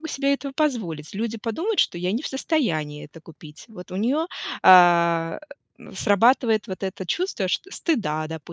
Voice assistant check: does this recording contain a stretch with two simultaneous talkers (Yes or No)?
No